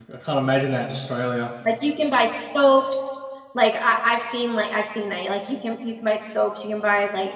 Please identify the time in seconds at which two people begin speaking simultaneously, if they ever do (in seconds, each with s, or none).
none